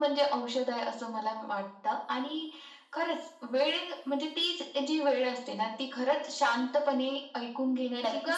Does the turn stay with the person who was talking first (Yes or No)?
No